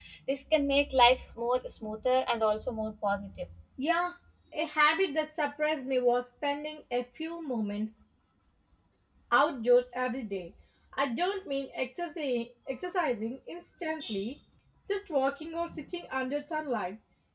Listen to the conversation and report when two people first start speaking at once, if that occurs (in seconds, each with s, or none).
none